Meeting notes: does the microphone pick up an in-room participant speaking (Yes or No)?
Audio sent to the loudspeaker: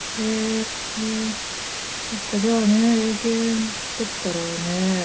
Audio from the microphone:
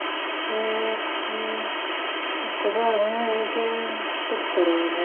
No